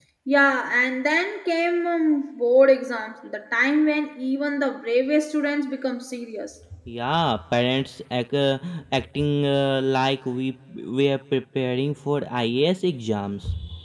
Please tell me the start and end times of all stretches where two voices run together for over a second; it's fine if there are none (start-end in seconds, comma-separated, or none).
none